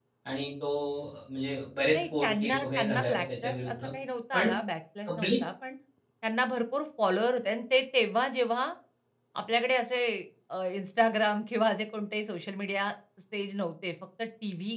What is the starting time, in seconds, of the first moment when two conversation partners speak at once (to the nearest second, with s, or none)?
2 s